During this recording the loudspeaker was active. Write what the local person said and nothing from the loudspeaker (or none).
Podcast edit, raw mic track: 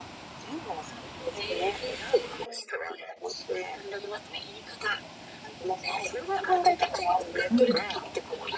うん。